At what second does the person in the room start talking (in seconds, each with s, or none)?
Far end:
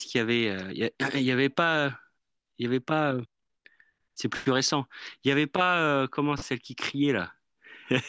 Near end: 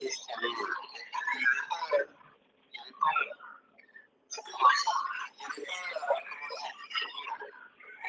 none